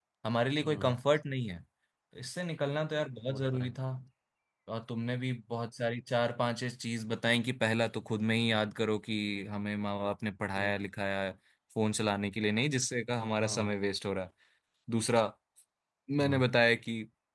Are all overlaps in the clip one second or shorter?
Yes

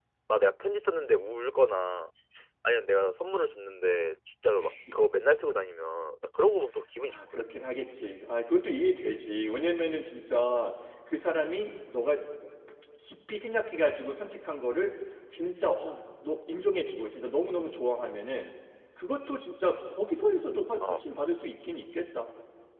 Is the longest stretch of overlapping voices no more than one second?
Yes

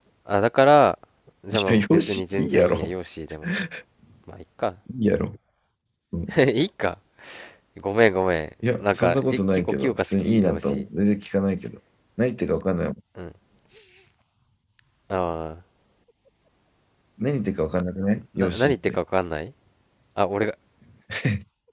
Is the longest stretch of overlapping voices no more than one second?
No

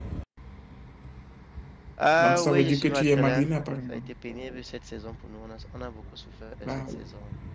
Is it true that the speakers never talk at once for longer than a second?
No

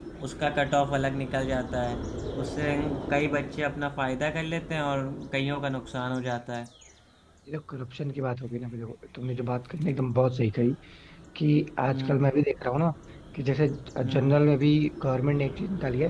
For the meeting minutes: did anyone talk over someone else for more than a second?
No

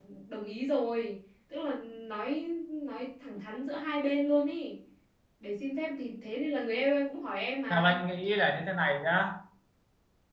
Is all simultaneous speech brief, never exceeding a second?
Yes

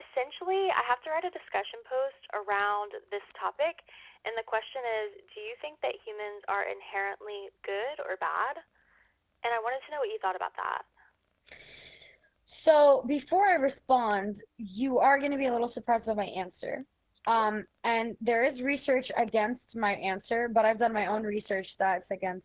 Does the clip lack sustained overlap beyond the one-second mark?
Yes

